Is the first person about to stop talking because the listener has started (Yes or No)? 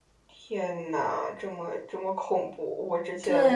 Yes